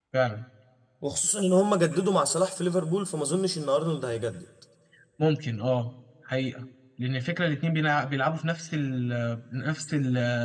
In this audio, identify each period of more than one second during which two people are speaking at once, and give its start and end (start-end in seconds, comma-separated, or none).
none